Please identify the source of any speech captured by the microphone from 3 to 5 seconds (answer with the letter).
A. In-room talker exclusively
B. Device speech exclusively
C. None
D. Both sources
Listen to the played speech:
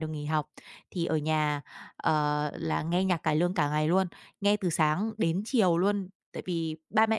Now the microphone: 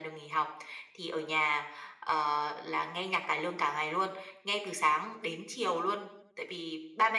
B